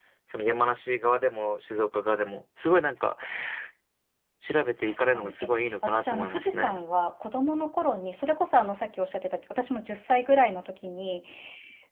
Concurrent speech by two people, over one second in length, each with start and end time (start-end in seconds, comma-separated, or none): 4.8-6.8